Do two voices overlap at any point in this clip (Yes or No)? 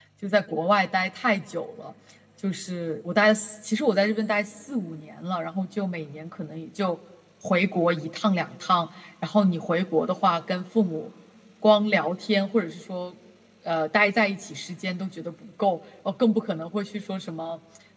No